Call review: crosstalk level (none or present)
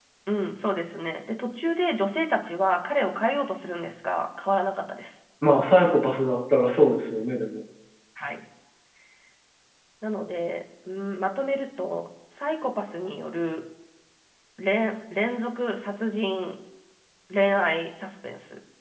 none